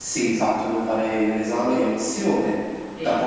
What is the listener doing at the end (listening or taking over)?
listening